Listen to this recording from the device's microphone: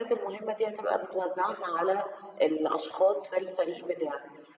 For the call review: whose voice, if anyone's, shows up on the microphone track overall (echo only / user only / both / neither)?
echo only